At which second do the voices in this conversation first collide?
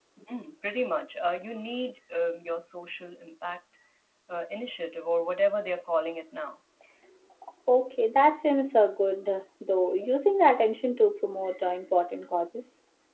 none

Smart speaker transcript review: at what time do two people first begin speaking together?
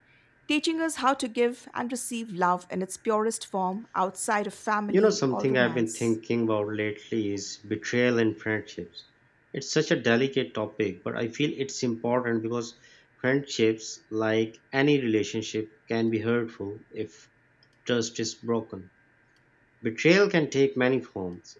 4.9 s

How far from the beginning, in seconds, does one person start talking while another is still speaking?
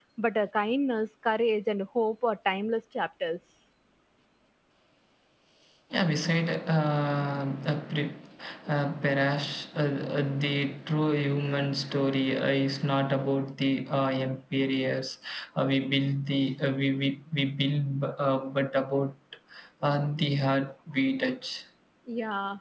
none

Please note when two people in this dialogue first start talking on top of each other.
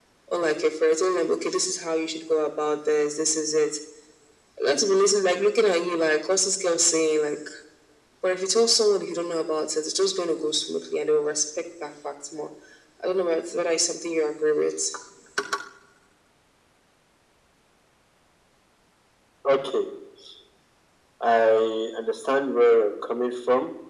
none

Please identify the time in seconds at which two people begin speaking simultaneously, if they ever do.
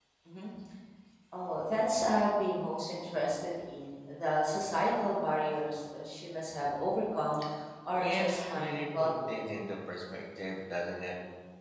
8.0 s

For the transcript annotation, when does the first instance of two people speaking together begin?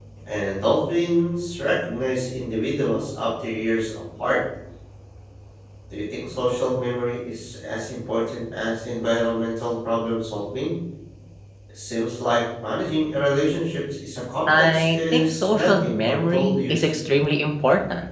14.5 s

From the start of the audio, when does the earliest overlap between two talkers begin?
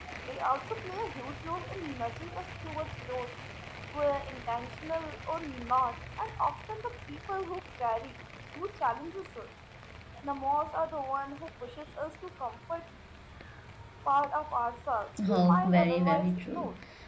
15.2 s

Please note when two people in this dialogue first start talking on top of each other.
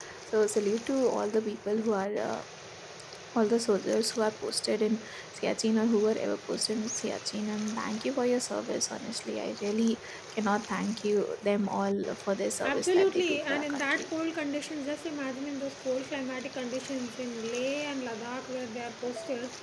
12.6 s

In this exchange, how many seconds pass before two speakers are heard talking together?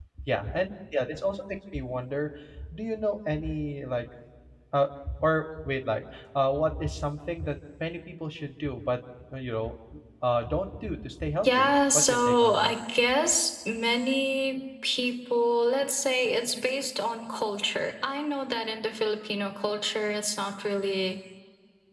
11.4 s

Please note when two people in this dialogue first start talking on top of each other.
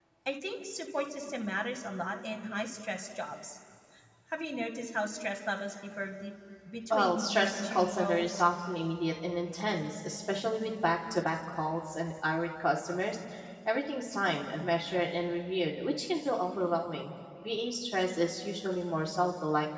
6.9 s

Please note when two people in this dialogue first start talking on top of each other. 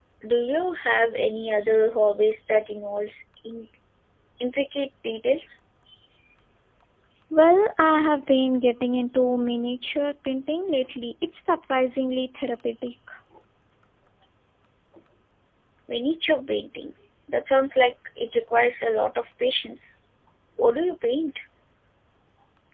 none

